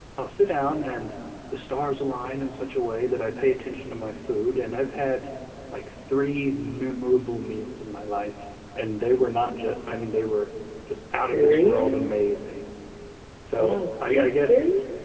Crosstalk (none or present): present